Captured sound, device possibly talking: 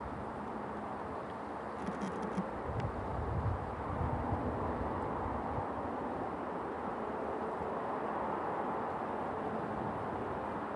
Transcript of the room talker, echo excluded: none

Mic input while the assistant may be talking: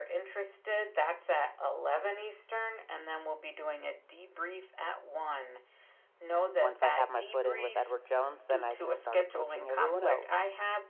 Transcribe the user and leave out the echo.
once I have my foot in with Edward Jones, then I can start approaching everyone else.

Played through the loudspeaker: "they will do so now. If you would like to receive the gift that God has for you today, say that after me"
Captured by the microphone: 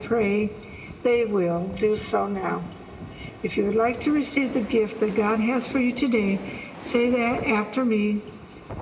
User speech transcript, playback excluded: none

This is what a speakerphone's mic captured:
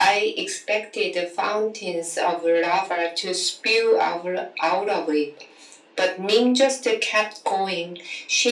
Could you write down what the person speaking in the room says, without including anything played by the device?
none

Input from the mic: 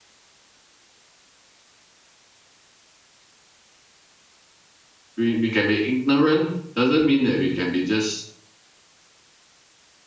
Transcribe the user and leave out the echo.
we, we can be ignorant doesn't mean that we can be just

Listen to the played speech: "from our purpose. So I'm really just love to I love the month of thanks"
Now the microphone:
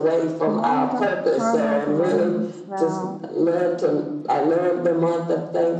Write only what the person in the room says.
Good morning, Dr. Carla. Good morning, Val.

